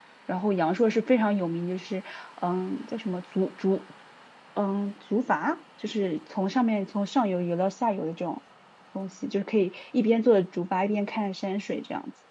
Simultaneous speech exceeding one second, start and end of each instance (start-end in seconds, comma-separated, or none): none